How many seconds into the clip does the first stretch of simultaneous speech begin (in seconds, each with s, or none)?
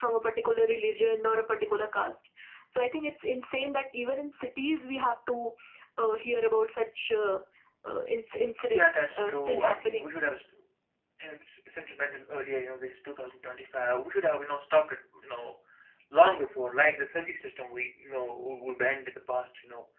8.7 s